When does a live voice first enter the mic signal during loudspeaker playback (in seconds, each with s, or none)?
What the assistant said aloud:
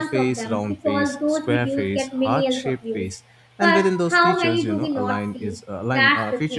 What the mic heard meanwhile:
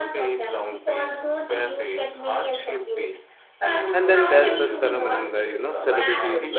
3.9 s